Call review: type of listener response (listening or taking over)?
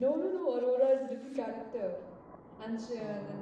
listening